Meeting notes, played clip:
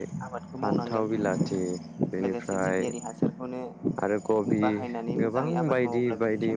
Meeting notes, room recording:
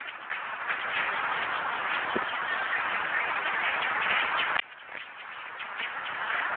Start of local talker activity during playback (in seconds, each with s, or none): none